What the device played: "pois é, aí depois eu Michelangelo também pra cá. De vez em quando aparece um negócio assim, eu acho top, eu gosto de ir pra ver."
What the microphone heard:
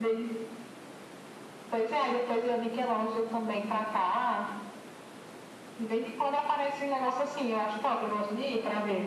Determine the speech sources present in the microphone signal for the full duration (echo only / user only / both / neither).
echo only